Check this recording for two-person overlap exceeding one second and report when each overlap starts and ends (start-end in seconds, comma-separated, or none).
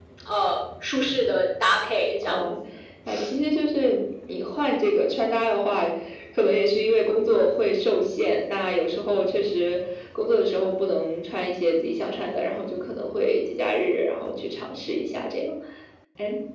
none